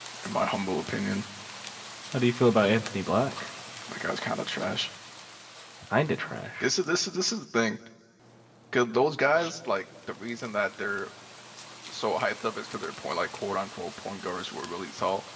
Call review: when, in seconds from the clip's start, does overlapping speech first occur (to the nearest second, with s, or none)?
none